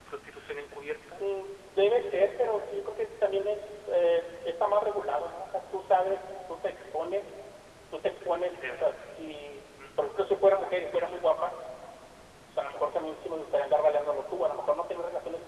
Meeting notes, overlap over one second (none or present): none